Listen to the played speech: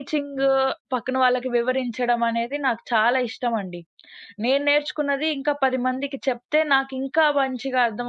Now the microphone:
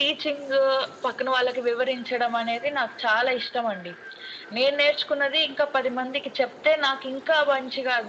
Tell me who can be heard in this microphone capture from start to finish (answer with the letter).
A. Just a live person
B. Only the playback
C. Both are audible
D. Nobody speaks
B